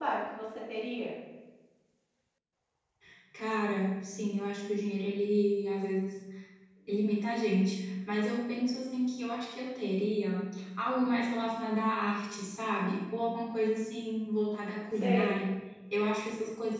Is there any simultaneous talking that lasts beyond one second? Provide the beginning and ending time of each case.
none

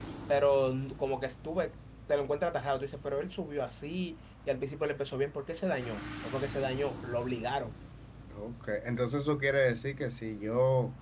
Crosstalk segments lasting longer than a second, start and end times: none

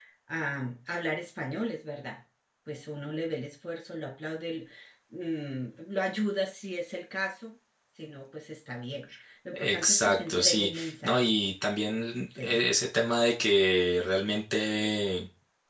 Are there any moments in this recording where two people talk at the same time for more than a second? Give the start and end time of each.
9.6-11.3

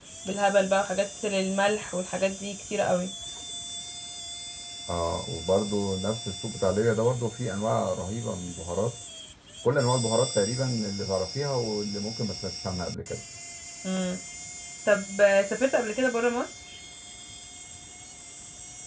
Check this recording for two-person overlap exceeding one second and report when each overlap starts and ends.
none

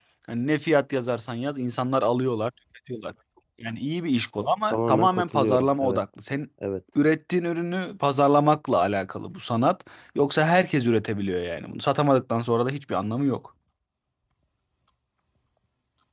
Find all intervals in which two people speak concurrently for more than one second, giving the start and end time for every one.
4.7-6.0

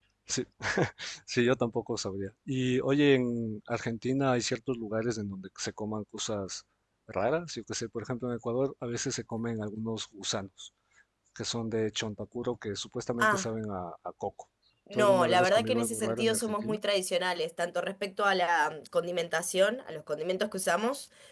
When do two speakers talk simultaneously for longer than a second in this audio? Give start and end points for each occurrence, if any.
14.9-16.8

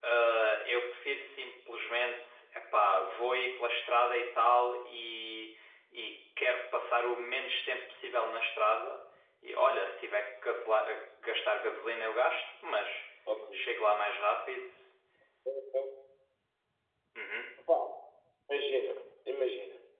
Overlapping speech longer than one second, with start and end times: none

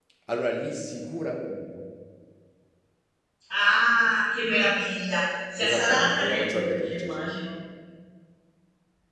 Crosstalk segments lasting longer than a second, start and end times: 5.6-7.3

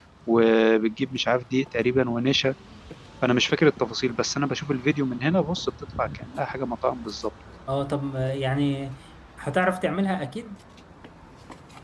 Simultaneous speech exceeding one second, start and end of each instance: none

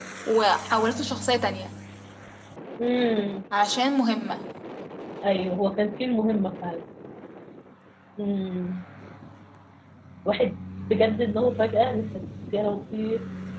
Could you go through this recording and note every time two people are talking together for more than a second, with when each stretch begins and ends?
none

